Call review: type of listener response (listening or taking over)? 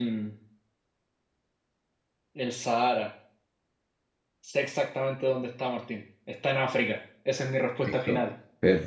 taking over